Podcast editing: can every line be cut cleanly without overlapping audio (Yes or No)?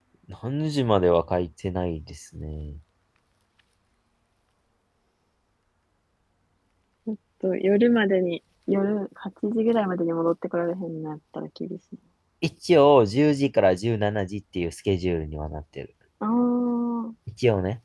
Yes